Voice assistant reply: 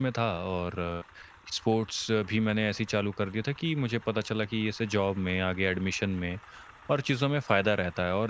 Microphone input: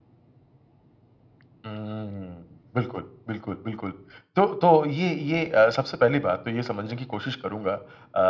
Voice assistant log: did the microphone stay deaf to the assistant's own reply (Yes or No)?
Yes